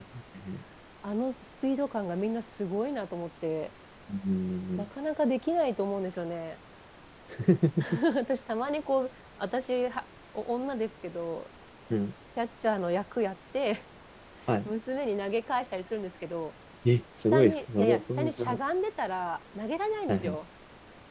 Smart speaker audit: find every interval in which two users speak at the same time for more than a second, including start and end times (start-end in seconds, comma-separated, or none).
17.3-18.6